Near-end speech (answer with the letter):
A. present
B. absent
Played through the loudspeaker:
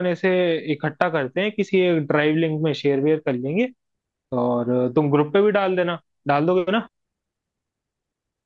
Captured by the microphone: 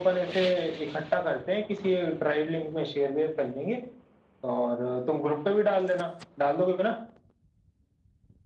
B